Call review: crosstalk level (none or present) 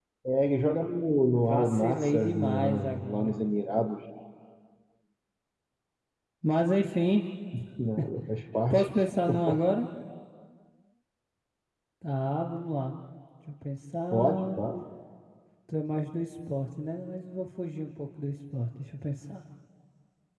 present